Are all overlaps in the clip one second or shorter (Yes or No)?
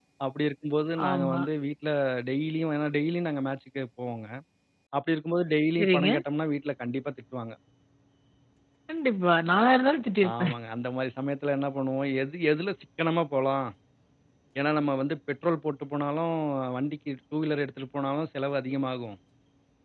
Yes